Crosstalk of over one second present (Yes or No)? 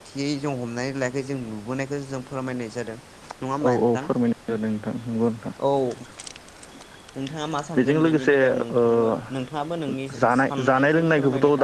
Yes